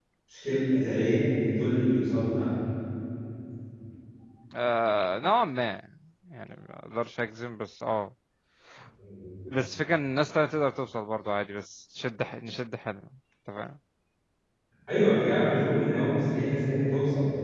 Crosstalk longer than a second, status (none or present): none